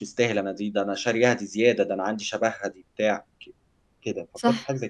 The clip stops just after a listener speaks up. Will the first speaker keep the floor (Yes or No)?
No